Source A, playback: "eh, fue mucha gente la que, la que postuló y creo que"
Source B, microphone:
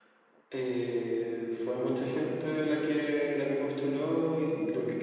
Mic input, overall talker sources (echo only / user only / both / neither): echo only